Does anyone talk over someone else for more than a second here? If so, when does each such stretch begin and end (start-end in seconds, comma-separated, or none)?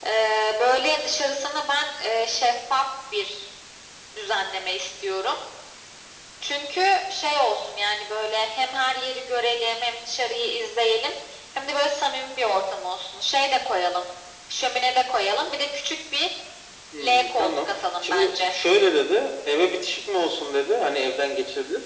17.0-18.5